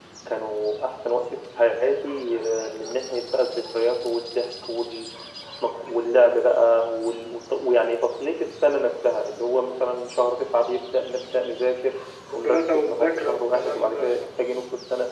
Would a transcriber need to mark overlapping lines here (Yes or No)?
Yes